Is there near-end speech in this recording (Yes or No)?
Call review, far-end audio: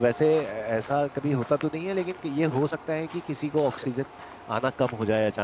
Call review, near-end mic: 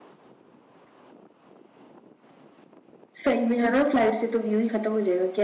Yes